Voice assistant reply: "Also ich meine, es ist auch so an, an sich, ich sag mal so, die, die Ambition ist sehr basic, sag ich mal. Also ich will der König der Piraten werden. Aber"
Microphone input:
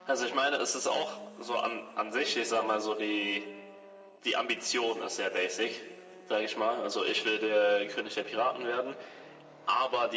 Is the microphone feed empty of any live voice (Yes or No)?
Yes